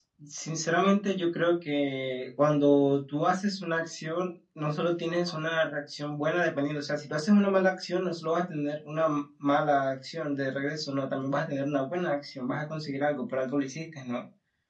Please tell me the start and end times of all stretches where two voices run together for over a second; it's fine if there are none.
none

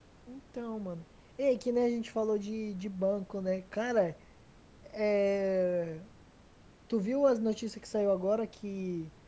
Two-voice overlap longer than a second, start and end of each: none

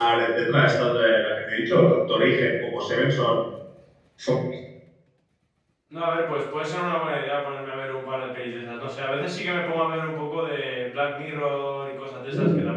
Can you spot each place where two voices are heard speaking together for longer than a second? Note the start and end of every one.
none

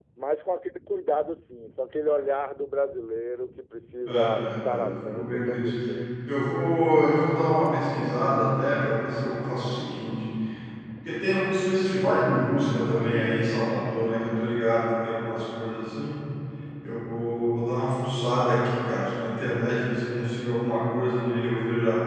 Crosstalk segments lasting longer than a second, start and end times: 4.1-5.7

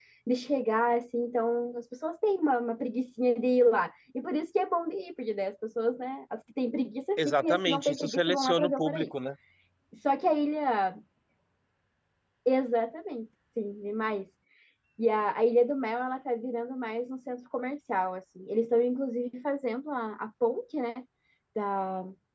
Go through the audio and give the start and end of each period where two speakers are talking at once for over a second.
7.2-9.1

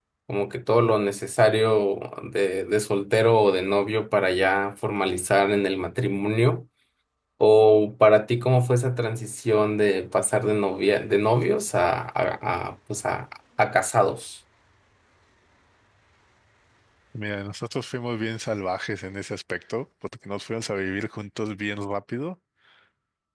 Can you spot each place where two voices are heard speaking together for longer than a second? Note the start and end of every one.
none

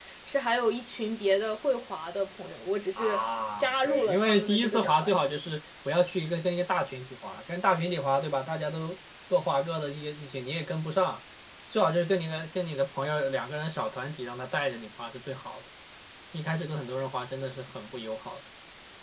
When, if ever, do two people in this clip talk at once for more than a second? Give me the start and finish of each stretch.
3.6-5.5

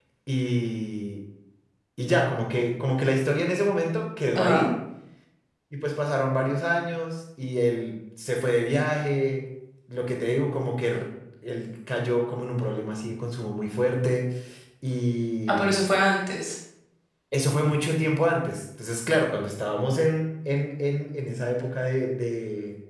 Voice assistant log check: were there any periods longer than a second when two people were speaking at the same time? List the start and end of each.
none

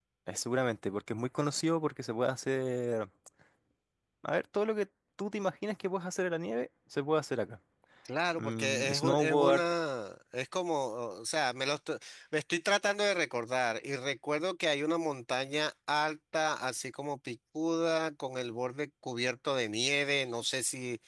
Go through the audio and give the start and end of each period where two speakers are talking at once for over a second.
8.4-9.6

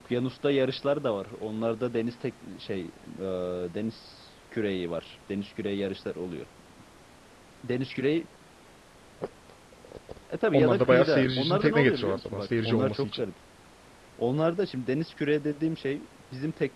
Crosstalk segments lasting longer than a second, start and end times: 10.5-13.2

